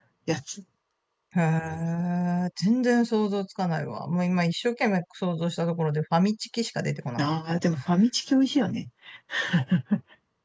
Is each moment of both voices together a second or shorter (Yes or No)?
Yes